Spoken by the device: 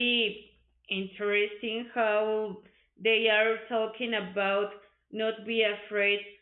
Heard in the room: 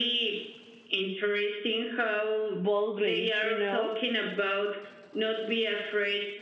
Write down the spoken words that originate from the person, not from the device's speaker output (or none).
boldly, you know?